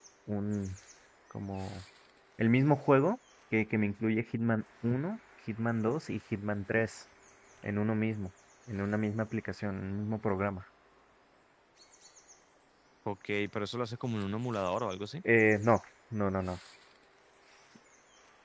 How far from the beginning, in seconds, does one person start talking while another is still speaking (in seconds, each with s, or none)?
none